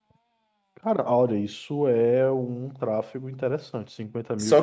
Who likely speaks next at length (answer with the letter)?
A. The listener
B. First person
A